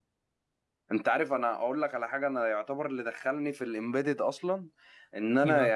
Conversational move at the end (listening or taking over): listening